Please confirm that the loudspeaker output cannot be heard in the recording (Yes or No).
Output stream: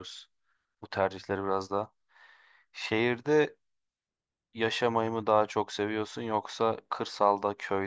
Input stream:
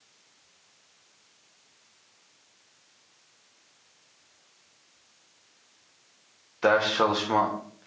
Yes